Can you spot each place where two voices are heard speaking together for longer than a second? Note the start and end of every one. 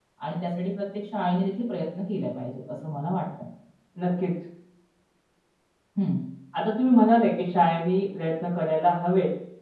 none

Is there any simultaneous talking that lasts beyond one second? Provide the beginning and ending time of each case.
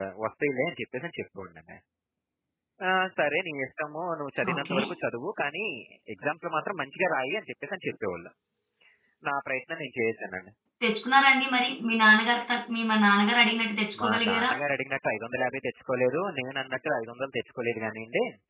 none

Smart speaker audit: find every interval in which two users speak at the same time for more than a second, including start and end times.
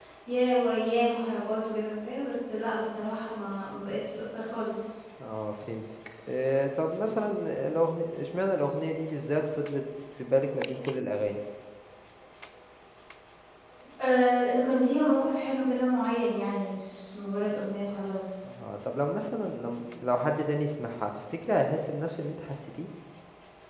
none

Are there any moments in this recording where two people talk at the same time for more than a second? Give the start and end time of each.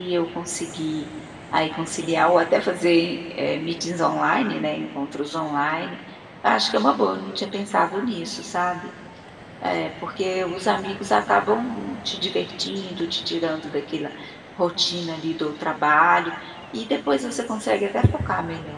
none

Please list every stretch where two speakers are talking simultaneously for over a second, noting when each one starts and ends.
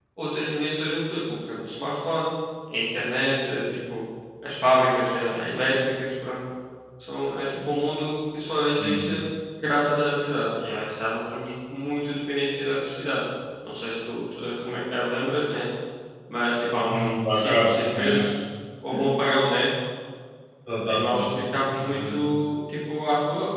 16.7-18.2

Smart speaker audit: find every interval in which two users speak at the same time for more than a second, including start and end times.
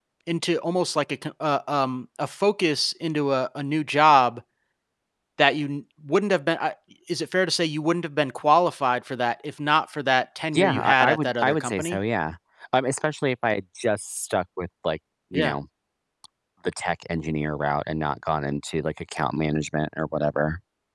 10.6-12.0

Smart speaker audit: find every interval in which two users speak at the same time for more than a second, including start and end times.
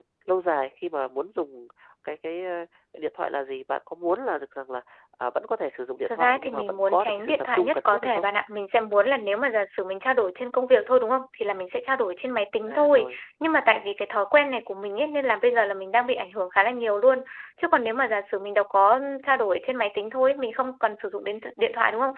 6.2-8.2

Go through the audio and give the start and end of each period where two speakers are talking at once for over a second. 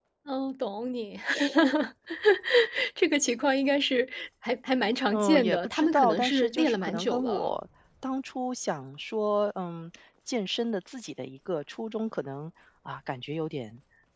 5.1-7.6

